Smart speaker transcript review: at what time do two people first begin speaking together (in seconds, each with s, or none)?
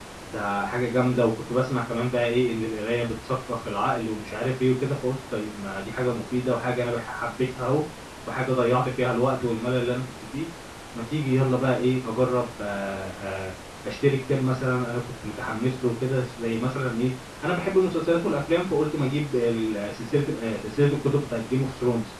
none